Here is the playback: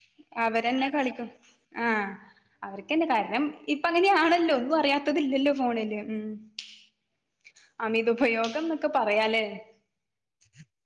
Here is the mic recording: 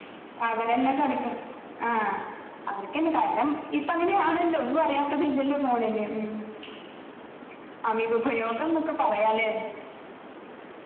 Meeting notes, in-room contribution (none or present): none